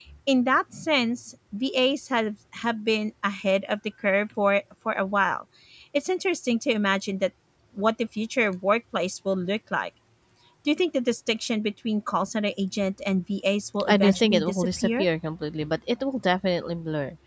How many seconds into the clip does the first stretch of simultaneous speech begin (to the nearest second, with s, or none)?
14 s